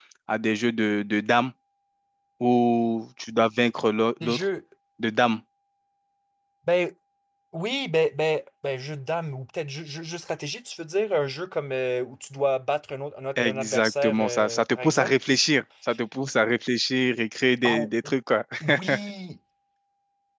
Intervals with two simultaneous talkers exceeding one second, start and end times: 13.4-15.1

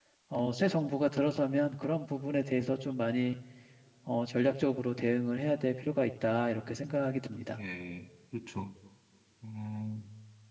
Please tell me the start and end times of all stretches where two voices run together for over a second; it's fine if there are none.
none

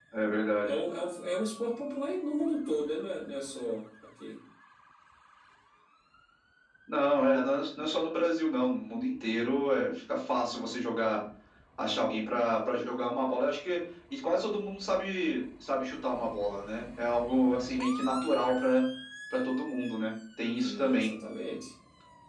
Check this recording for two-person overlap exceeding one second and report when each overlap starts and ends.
none

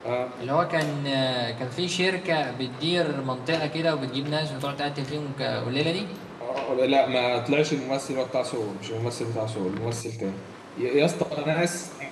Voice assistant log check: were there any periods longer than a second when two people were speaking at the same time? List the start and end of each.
none

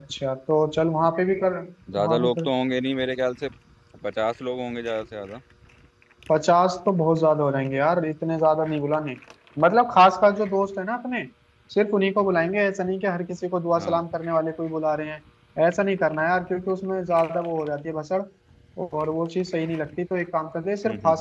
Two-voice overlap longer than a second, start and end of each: none

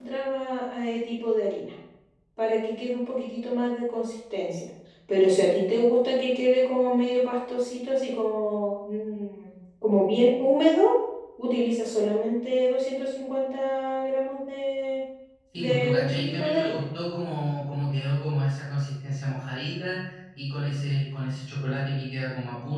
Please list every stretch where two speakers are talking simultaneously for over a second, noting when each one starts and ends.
15.6-16.9

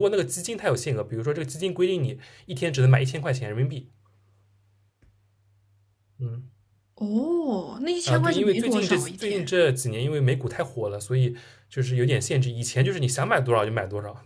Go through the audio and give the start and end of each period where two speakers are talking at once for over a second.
8.1-9.5

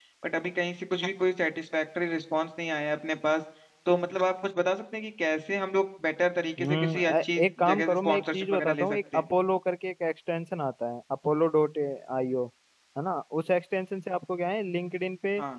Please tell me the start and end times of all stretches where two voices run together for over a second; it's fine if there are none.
6.6-9.2

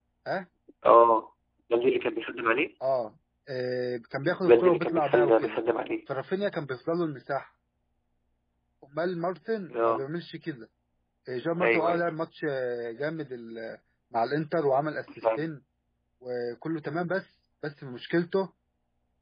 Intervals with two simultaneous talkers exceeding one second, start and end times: 4.2-5.6

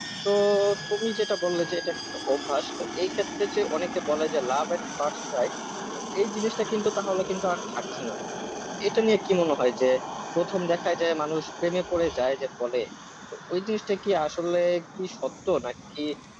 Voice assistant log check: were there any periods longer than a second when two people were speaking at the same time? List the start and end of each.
none

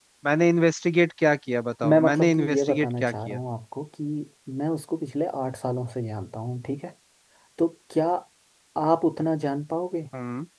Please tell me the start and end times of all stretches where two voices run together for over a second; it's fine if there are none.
1.9-3.4

